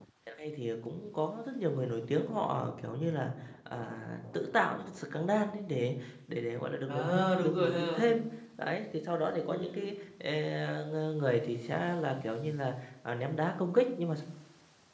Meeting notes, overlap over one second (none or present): present